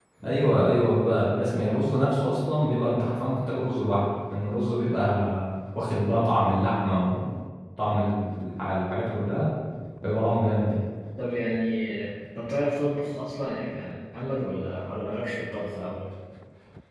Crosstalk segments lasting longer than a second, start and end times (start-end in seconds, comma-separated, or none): none